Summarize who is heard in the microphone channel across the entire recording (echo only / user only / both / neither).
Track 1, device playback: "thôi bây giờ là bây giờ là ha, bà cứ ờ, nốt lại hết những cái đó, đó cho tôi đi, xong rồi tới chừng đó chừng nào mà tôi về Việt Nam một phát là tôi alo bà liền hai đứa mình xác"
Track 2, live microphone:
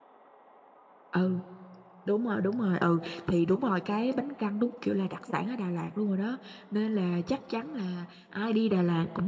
user only